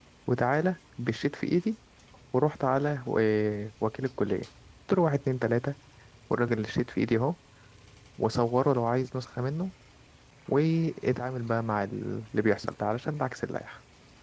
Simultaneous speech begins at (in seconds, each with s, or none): none